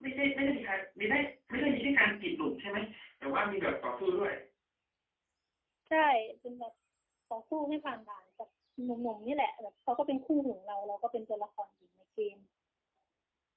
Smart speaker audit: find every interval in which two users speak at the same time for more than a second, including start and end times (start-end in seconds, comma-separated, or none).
none